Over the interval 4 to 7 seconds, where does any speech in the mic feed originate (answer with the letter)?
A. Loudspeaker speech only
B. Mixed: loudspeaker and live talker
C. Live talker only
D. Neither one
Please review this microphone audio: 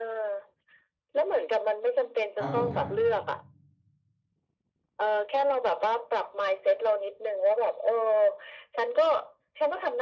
A